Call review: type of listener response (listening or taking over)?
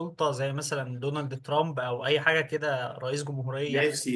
taking over